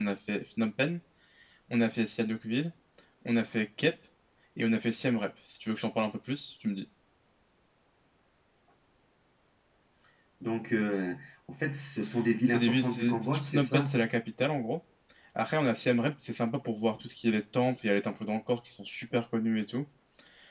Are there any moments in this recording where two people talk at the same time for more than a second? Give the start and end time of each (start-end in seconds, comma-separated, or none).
12.5-14.0